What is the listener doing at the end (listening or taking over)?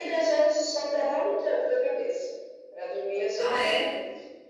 listening